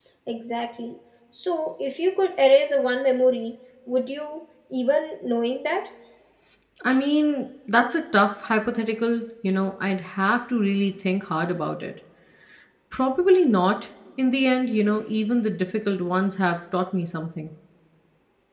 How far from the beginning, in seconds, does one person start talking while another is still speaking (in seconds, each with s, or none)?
none